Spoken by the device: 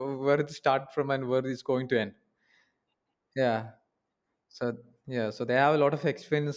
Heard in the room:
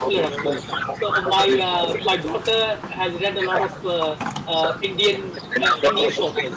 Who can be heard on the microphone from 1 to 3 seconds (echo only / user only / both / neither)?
both